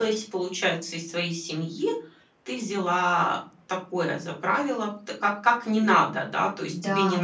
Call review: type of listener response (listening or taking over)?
listening